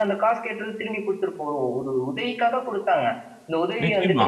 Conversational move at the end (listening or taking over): taking over